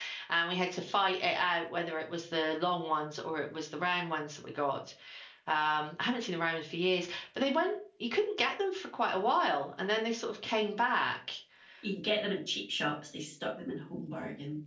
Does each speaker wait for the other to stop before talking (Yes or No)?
Yes